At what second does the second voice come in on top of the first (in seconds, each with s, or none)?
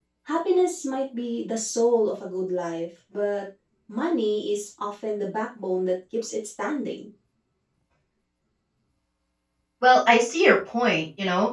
none